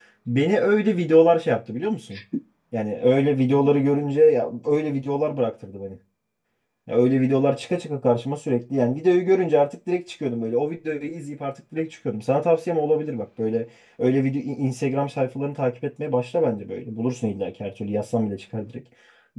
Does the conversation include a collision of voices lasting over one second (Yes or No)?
No